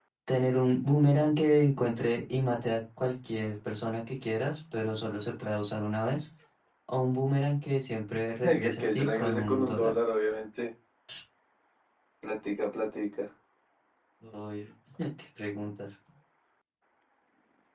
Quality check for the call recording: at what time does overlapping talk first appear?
8.4 s

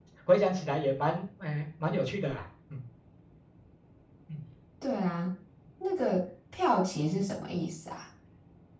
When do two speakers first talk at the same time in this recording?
none

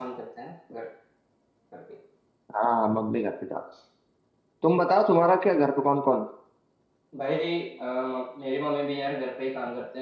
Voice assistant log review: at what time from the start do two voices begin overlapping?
none

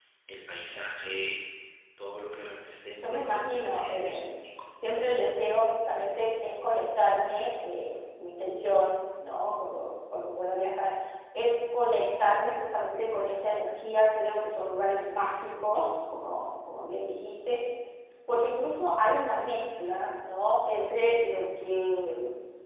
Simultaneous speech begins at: 3.0 s

